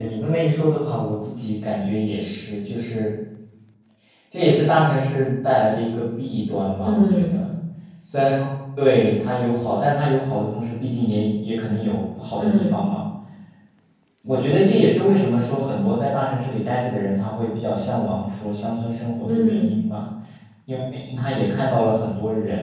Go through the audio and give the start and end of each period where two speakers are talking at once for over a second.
none

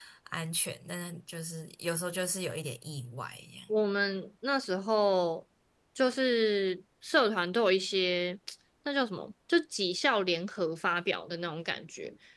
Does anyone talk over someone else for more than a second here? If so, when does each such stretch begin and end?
none

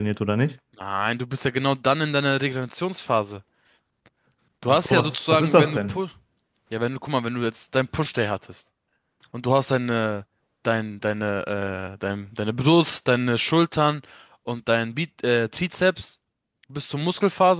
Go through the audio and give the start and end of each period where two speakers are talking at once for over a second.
4.6-6.0

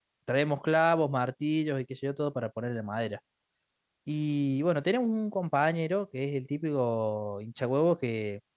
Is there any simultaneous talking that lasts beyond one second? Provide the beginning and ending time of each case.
none

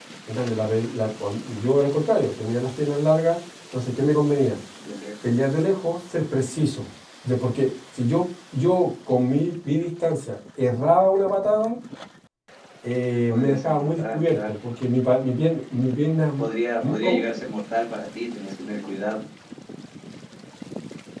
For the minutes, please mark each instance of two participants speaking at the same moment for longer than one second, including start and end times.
13.3-14.5

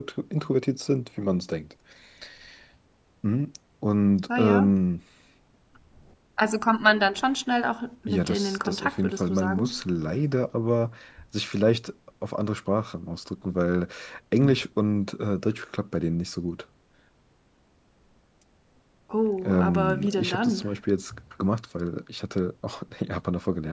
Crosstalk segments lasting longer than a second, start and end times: 8.1-9.8, 19.4-20.6

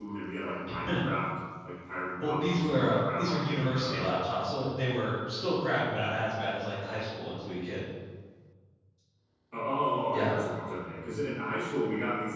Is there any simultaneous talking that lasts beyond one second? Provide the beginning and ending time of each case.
2.2-4.0

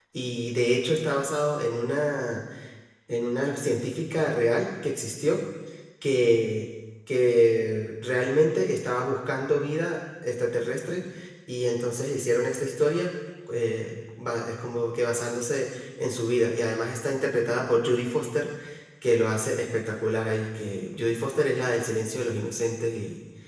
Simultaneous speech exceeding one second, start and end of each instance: none

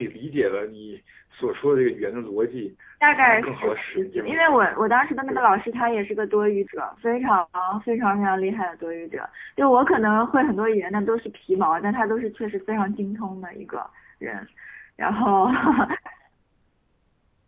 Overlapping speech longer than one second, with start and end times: 3.1-4.7

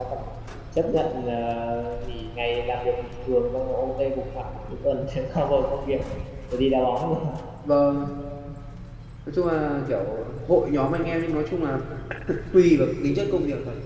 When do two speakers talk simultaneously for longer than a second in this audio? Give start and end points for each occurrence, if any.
none

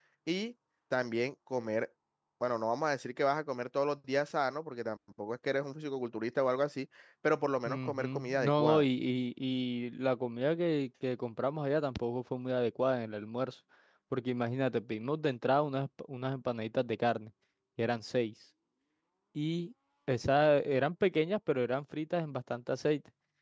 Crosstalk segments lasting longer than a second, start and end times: 7.7-8.8

